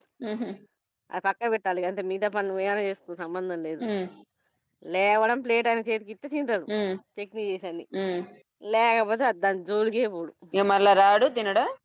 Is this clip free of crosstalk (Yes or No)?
Yes